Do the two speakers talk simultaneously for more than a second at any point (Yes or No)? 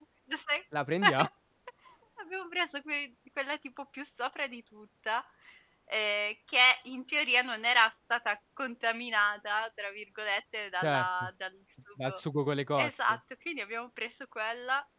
No